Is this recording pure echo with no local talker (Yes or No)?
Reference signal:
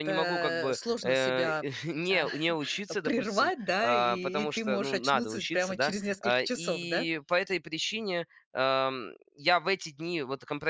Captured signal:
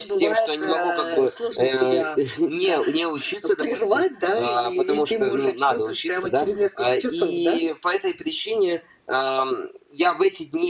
Yes